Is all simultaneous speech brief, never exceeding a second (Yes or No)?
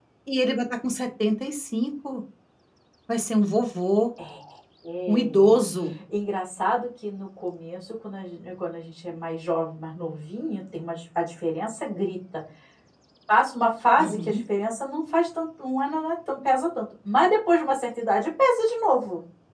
Yes